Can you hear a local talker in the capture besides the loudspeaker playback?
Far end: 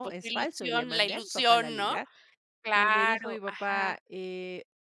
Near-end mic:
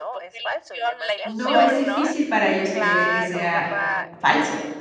Yes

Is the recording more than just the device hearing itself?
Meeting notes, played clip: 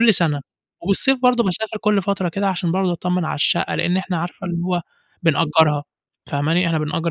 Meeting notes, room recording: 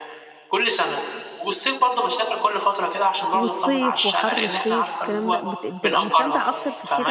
Yes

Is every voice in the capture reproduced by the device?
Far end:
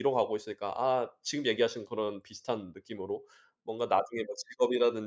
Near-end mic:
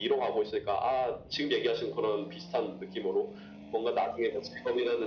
Yes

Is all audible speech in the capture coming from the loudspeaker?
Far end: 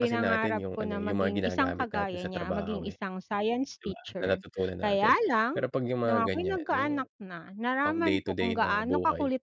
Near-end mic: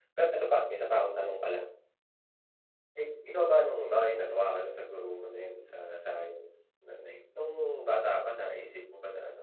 No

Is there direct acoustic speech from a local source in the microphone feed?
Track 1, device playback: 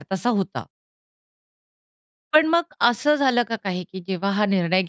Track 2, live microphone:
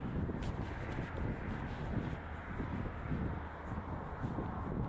No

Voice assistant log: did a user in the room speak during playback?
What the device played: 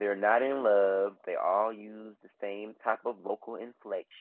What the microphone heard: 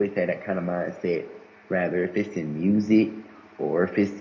Yes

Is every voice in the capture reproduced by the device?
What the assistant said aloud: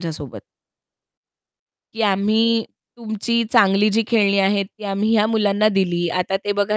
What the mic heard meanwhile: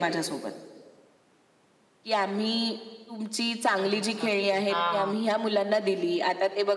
No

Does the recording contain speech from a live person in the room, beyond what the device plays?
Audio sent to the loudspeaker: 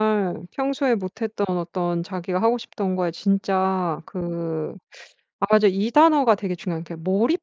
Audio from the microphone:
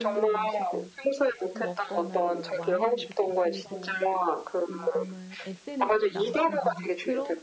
Yes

